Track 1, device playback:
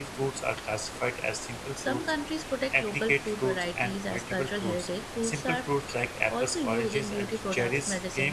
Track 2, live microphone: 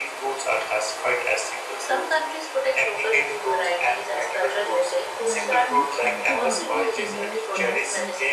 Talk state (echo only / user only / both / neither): both